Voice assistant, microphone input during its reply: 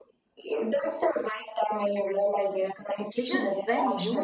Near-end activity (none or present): present